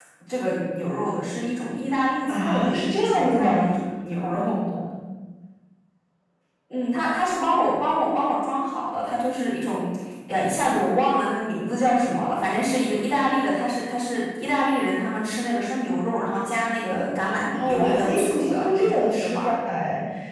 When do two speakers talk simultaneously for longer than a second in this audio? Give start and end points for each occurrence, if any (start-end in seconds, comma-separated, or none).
2.3-3.7, 17.5-19.5